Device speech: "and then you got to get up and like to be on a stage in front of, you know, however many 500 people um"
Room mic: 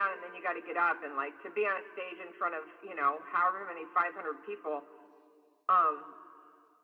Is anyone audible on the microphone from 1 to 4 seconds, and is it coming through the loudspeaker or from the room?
echo only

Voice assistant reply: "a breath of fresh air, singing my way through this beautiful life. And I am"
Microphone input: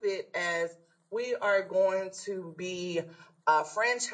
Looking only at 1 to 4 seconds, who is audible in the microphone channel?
user only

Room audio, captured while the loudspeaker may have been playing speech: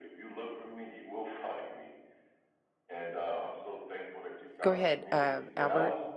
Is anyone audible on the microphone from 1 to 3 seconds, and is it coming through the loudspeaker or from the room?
echo only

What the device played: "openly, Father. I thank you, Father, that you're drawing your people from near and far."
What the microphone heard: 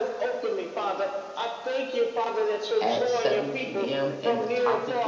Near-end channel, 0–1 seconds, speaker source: echo only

